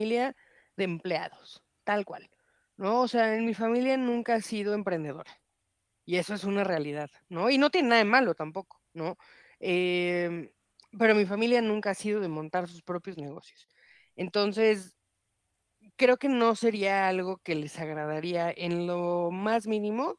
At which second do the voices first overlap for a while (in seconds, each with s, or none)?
none